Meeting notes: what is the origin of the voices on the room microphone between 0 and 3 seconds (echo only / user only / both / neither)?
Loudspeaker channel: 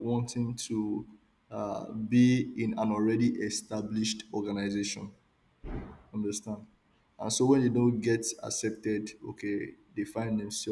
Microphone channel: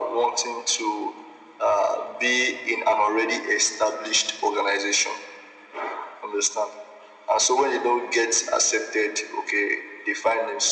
echo only